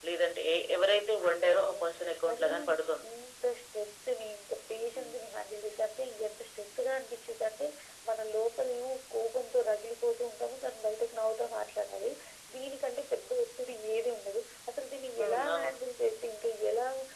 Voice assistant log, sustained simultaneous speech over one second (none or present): none